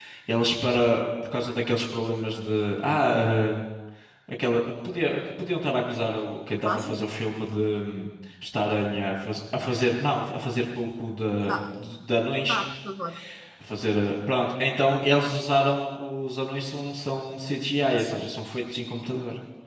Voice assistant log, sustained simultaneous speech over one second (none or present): none